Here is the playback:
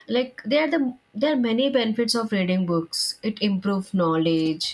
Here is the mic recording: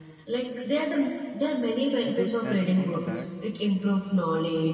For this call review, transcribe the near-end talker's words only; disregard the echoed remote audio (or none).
because as we all know that